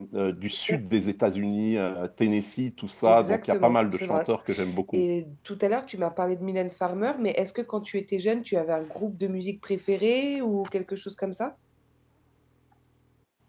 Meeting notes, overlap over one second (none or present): present